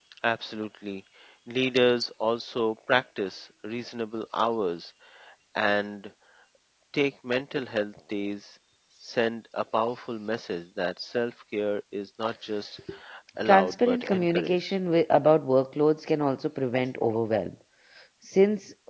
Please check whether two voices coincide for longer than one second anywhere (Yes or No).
Yes